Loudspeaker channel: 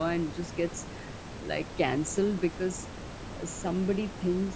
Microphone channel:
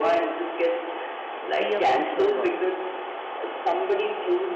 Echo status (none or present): present